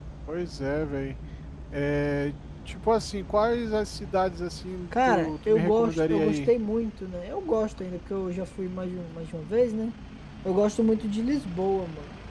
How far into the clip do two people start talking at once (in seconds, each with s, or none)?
4.9 s